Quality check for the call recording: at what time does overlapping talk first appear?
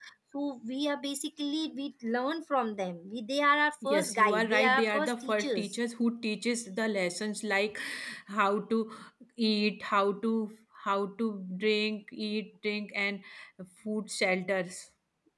3.8 s

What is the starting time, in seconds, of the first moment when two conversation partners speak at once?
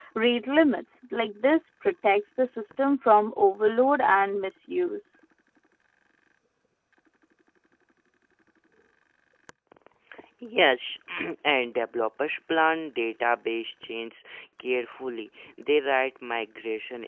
none

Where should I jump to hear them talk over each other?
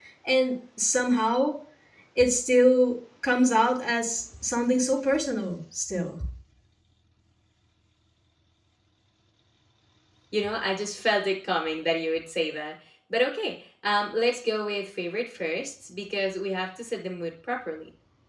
none

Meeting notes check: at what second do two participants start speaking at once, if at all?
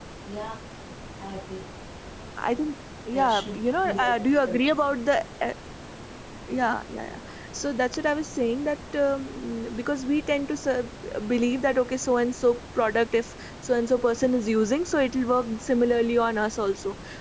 3.1 s

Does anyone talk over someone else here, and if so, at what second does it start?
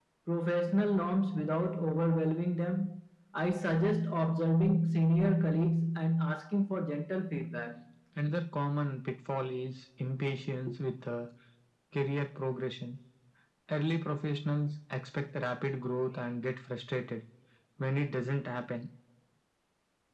none

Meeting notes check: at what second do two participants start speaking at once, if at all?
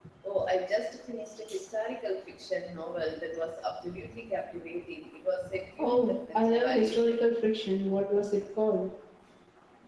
5.8 s

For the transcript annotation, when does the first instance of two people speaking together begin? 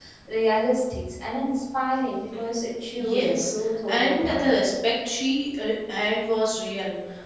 2.9 s

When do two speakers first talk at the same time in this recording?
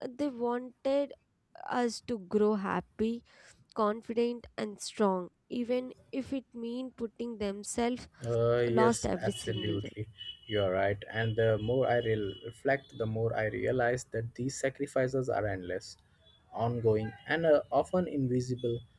8.7 s

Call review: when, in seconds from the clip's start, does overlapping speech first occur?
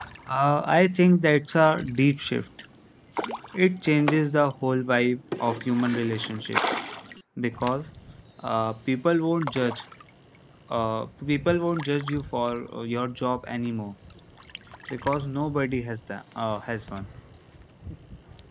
none

